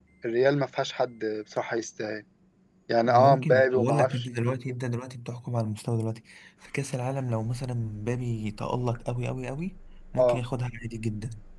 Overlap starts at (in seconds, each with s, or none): 3.0 s